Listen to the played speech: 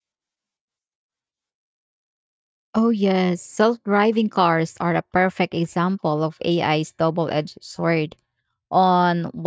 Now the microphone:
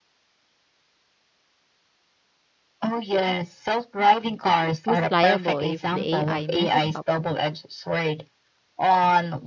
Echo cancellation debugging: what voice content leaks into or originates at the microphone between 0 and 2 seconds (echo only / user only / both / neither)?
neither